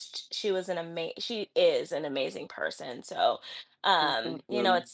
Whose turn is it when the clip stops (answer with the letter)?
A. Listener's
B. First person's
B